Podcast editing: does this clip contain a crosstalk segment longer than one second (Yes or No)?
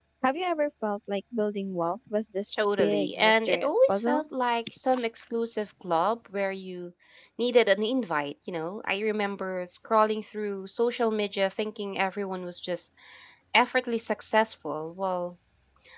Yes